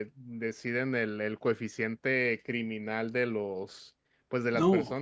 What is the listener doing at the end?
listening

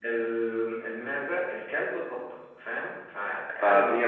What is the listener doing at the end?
taking over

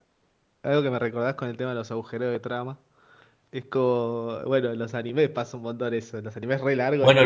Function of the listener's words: taking over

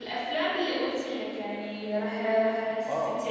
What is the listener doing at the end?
taking over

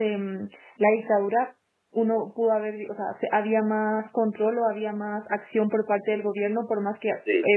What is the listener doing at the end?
listening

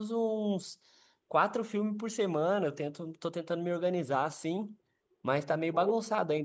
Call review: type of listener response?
listening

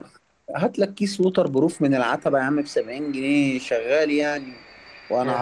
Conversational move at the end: listening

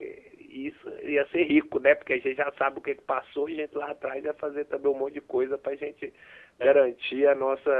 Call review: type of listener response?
listening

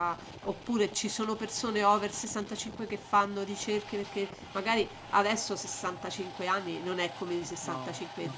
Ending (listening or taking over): listening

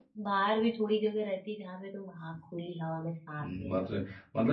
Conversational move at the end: taking over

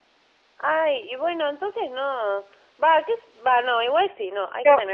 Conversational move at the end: taking over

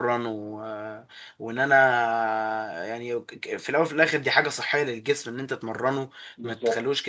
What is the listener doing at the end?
listening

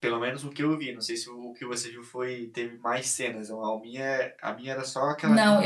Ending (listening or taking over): taking over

